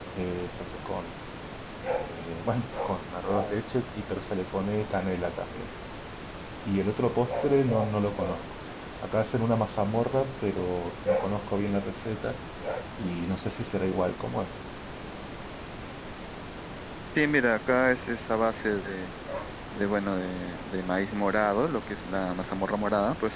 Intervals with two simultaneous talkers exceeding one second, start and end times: none

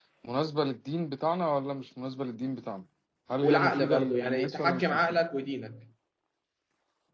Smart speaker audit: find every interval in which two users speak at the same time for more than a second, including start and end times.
3.4-5.2

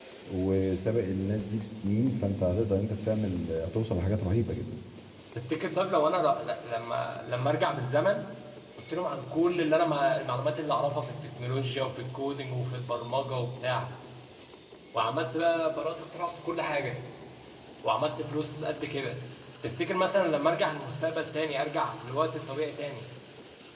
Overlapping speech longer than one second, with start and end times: none

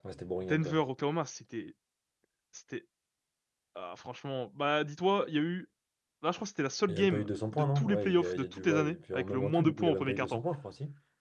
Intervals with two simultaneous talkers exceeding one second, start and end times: 6.9-10.4

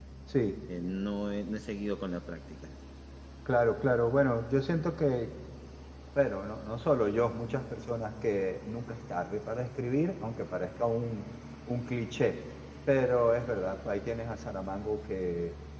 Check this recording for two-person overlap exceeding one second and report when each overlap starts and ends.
none

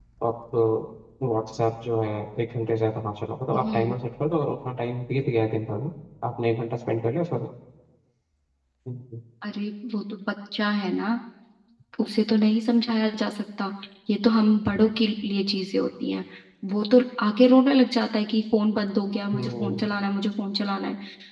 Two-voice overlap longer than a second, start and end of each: none

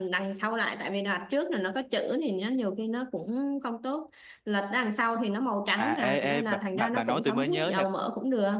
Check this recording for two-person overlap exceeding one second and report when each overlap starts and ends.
5.8-7.8

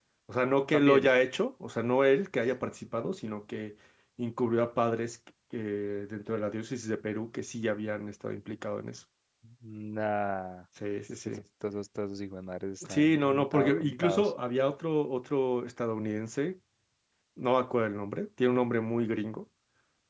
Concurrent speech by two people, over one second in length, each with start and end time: 12.9-14.3

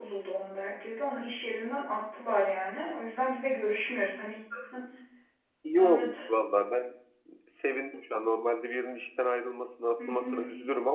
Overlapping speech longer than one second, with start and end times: none

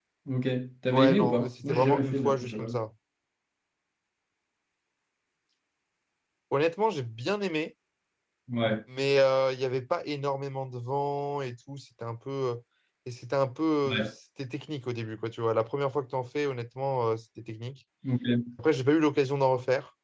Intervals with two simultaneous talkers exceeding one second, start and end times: 0.9-2.8

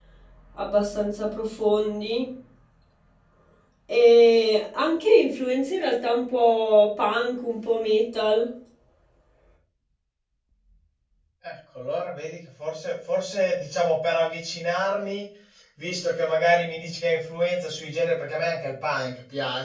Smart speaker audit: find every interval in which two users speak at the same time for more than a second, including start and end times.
none

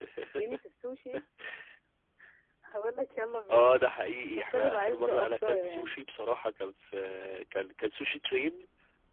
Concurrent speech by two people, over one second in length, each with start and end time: 4.4-6.0

